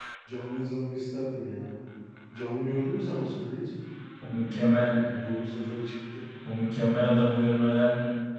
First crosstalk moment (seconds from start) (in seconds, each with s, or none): none